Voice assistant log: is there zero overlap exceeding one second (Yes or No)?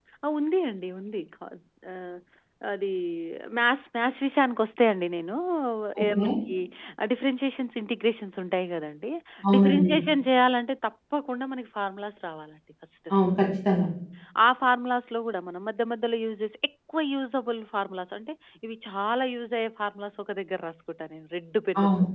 Yes